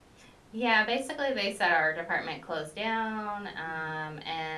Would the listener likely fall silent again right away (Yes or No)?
Yes